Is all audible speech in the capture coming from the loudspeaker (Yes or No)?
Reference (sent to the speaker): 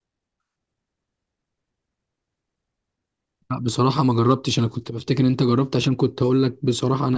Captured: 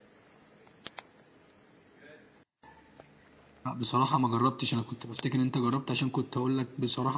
Yes